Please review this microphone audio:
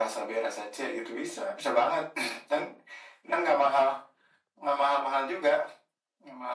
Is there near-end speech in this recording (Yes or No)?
No